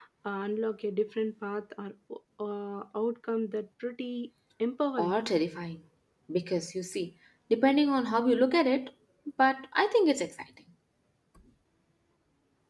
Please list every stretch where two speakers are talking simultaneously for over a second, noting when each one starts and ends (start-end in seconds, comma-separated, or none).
none